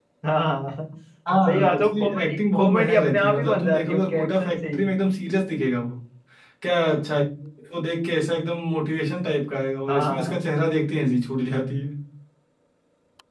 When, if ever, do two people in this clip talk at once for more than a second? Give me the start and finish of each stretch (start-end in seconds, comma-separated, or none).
1.5-4.9